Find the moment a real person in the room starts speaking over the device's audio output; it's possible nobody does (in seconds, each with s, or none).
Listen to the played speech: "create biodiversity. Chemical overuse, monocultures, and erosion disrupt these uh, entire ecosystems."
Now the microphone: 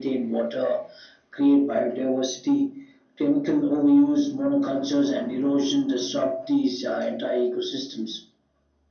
none